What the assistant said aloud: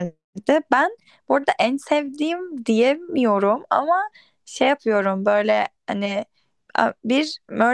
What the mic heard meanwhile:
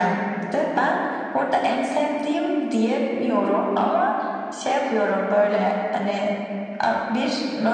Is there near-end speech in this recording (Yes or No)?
No